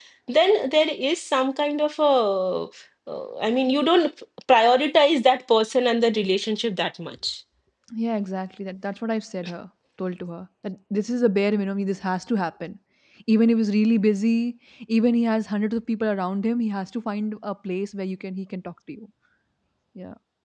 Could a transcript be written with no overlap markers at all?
Yes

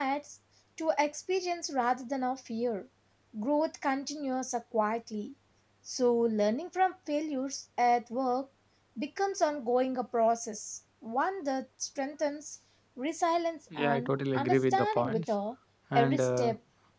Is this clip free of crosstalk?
No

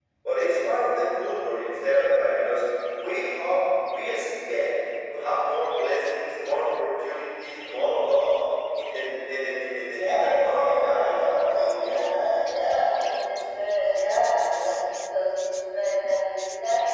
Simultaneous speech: Yes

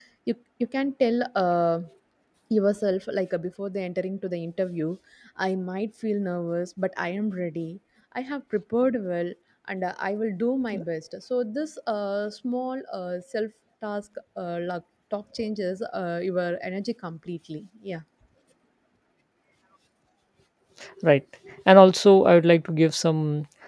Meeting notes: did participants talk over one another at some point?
No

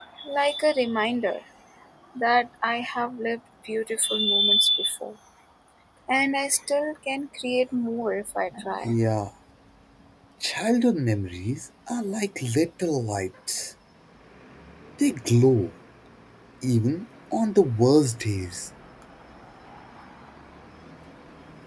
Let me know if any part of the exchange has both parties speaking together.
No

